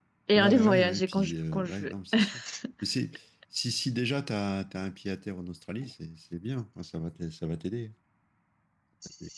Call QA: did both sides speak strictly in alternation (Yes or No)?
No